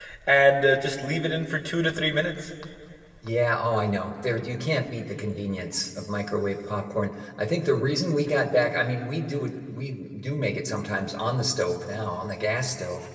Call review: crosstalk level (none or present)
none